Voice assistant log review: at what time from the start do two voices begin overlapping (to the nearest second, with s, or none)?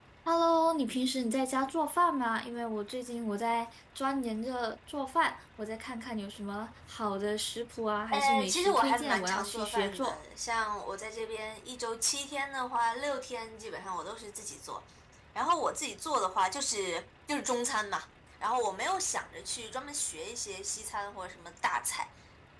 8 s